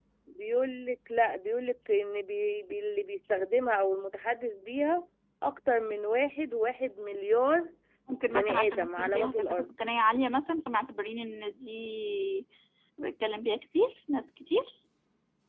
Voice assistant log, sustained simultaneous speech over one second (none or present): present